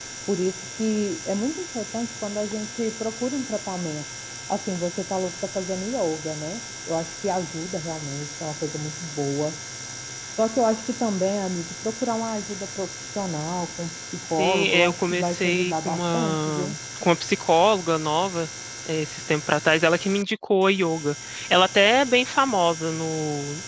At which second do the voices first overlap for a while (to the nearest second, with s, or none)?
14 s